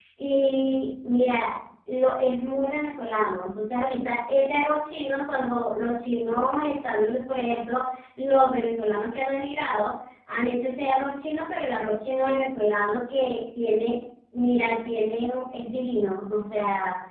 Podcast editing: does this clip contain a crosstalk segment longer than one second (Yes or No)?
No